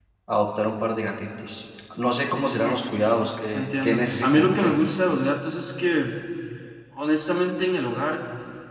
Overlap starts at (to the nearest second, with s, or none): 4 s